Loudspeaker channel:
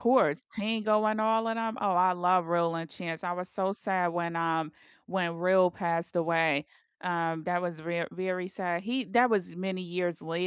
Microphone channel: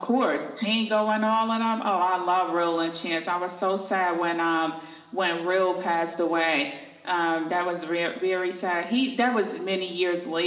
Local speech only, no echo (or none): none